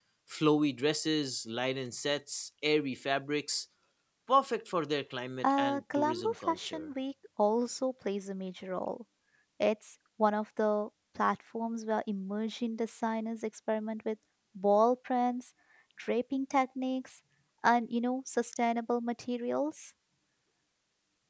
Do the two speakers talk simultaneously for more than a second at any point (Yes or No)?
Yes